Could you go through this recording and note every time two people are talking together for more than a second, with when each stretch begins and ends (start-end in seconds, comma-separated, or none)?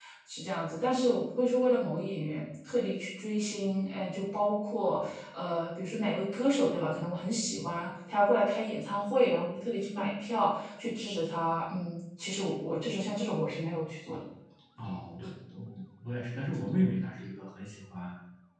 none